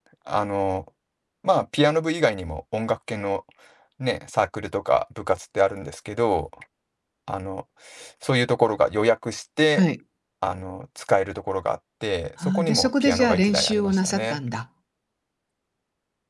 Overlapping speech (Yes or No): Yes